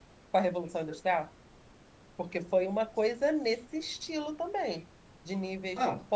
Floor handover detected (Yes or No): No